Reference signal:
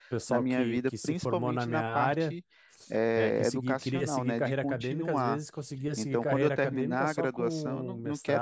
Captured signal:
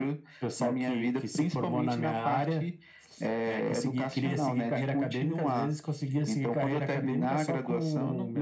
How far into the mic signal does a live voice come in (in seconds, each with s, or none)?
none